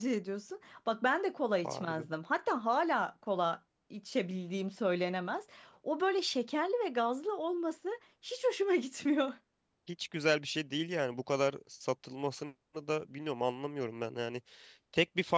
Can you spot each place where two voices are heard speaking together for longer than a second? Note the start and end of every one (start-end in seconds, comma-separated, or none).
none